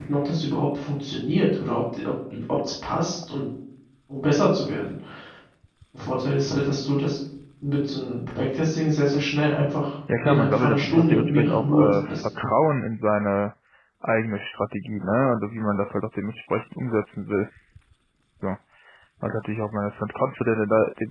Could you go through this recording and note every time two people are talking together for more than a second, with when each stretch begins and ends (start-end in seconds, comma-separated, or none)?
10.2-12.2